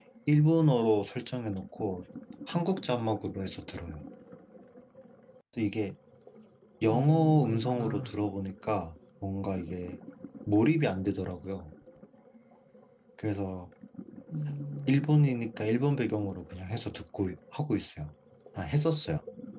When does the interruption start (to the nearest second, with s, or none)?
7 s